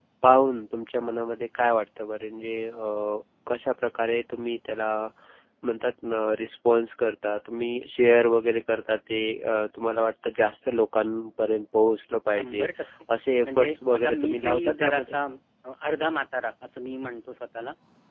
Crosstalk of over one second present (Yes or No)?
Yes